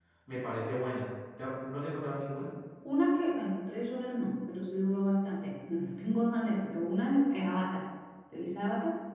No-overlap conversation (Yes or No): Yes